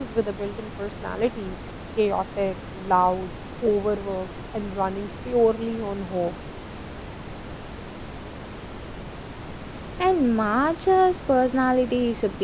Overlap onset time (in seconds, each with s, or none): none